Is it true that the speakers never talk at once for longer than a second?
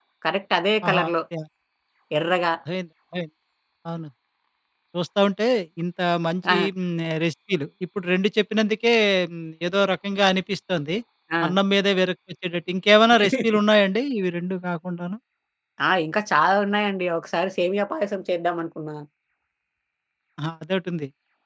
Yes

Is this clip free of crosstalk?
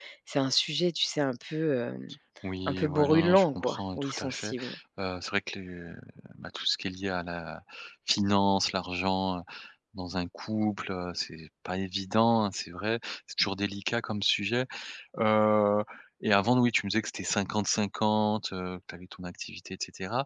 No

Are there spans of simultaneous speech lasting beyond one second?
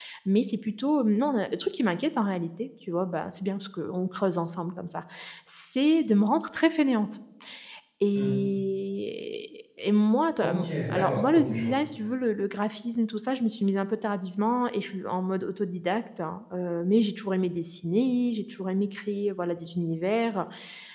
Yes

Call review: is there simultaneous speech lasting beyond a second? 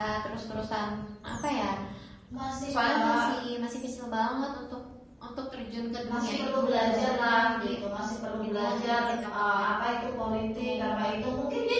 Yes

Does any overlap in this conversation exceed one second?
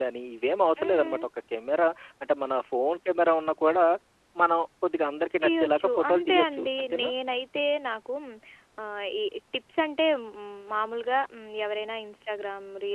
Yes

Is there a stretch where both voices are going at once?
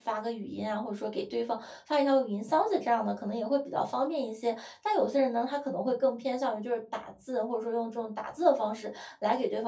No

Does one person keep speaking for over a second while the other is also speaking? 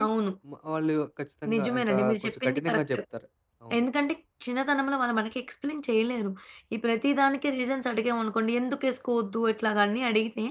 Yes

